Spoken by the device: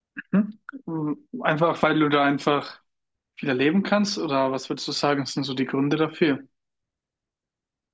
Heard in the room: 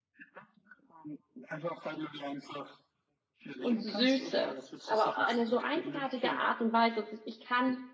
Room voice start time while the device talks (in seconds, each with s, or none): 3.6 s